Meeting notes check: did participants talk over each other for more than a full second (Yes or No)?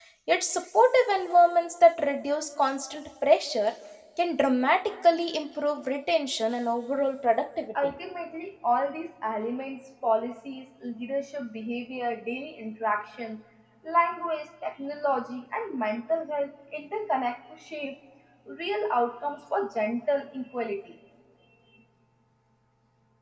No